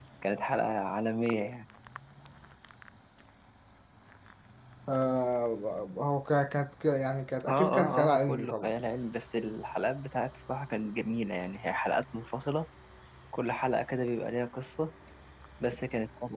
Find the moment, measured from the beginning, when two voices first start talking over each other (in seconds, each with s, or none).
7.5 s